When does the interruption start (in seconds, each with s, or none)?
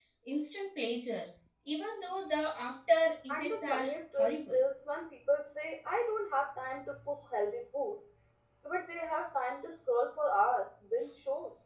3.3 s